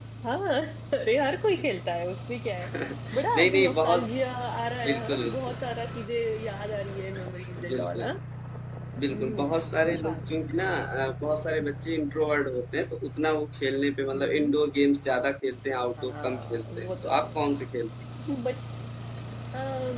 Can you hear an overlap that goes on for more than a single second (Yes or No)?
Yes